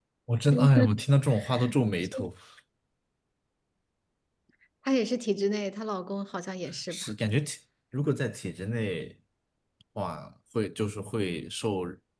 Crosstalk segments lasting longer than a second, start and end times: none

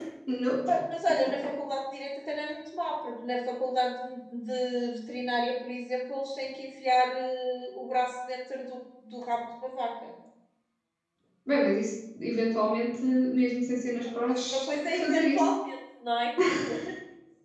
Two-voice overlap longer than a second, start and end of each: 14.3-15.5

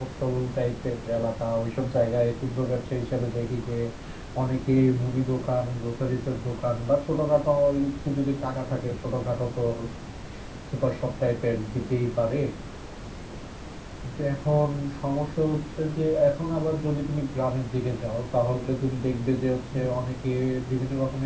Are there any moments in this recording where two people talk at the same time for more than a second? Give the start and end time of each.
none

